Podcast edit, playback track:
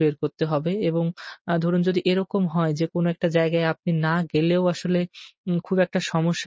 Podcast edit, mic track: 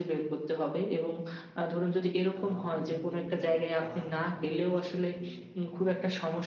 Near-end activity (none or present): present